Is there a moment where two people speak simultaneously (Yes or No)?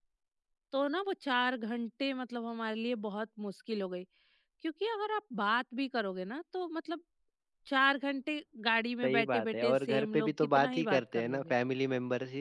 Yes